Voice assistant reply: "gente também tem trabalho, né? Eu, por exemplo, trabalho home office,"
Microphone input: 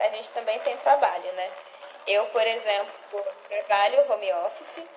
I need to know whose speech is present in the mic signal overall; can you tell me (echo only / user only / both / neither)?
echo only